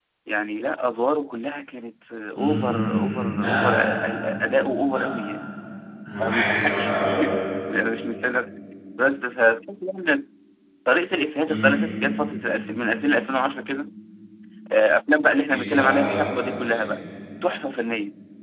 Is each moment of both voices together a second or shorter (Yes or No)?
No